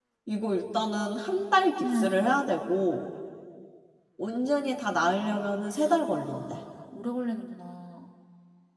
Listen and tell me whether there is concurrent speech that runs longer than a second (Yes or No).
No